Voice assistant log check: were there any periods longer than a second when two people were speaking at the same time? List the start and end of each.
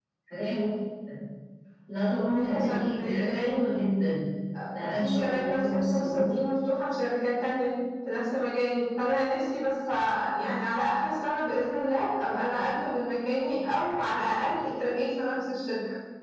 2.2-3.6, 5.0-6.4

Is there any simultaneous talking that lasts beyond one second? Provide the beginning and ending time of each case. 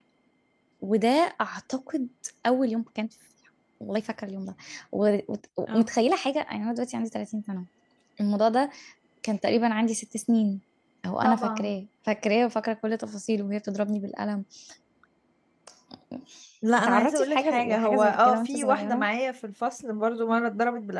16.8-19.0

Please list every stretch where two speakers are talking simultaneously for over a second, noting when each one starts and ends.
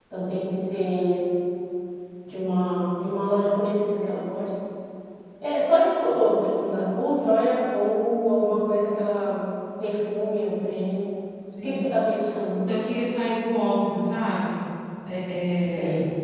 none

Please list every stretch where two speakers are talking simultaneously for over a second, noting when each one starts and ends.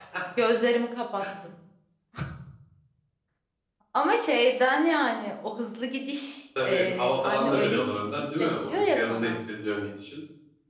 6.6-9.4

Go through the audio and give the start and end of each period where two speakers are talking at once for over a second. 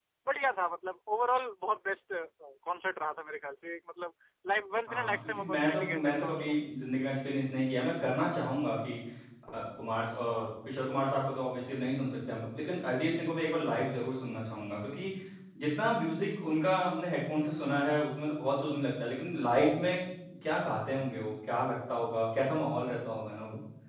4.9-6.6

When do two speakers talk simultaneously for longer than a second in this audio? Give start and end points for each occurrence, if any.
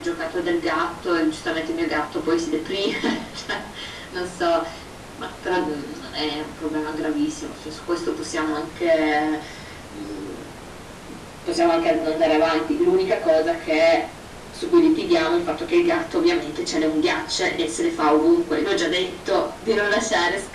none

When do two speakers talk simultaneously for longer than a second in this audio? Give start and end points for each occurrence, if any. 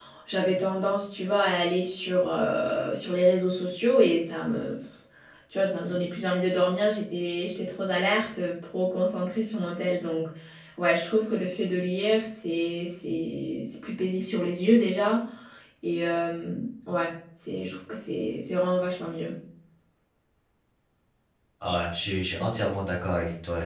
none

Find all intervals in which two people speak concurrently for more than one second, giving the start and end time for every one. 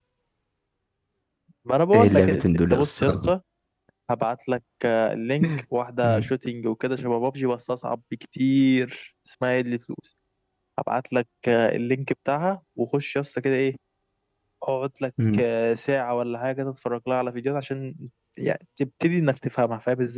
1.9-3.3

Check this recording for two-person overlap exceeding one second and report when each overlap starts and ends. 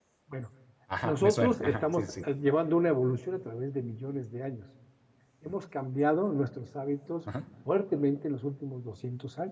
1.0-2.2

